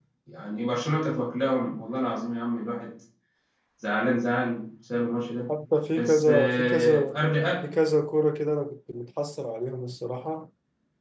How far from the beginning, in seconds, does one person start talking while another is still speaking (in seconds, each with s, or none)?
6.0 s